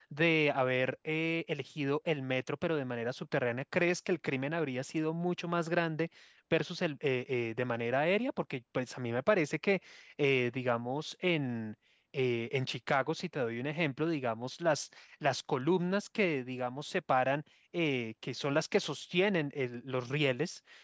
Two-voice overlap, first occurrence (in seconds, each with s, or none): none